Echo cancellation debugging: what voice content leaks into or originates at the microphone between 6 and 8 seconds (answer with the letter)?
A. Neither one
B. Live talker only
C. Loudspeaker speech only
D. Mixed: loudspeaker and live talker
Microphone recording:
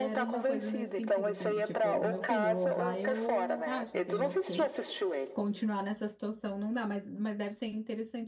B